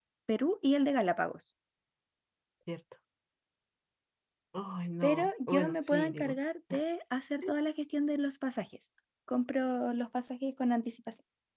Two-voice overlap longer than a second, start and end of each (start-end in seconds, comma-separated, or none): 5.0-6.4